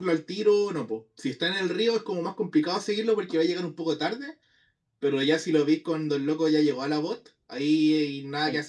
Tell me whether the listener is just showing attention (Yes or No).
No